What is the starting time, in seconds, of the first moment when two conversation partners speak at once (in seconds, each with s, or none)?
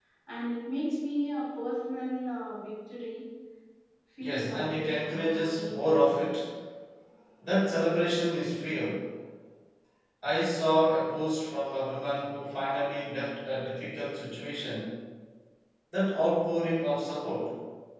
4.2 s